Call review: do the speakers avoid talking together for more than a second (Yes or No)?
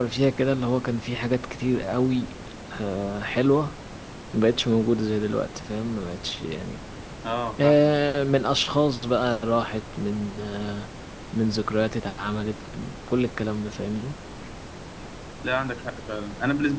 Yes